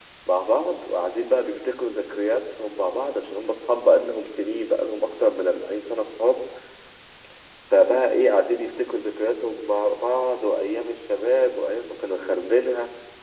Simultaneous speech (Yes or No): No